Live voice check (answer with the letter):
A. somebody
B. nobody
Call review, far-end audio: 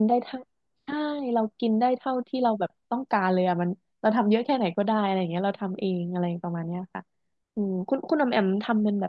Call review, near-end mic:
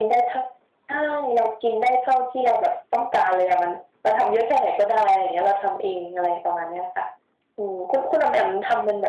B